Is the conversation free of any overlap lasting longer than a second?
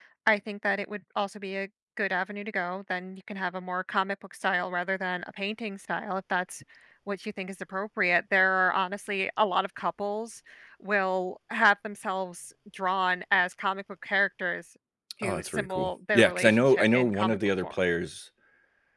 No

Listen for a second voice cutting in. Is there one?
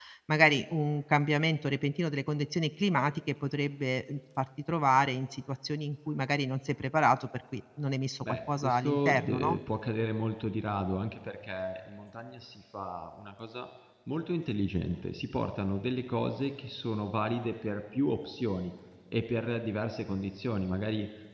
Yes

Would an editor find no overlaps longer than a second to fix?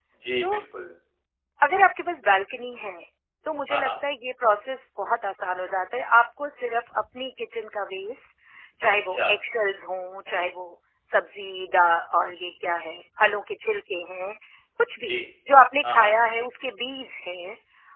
Yes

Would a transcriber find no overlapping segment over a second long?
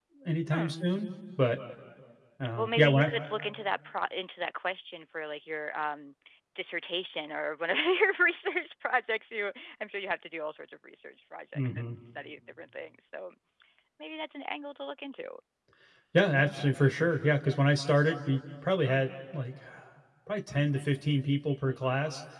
Yes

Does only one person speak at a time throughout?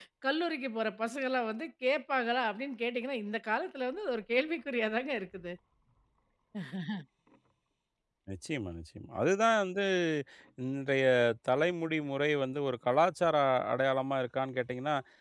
Yes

